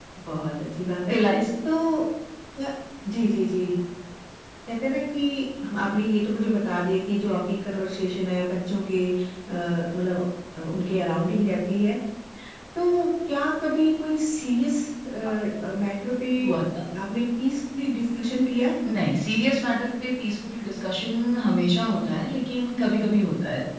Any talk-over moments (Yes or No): No